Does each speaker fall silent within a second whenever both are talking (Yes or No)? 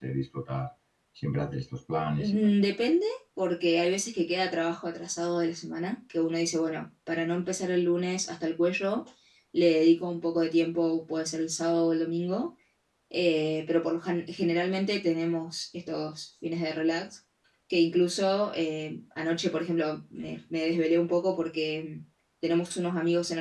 Yes